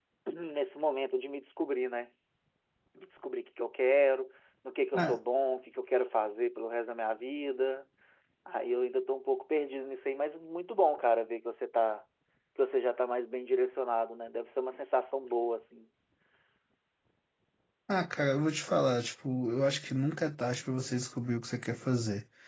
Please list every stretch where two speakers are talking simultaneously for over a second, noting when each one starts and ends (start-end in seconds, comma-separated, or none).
none